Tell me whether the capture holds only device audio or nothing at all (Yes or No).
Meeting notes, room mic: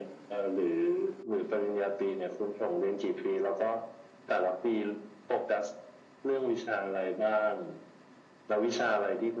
Yes